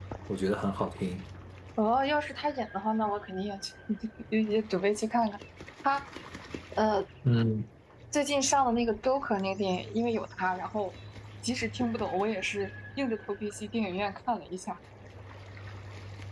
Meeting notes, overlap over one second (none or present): none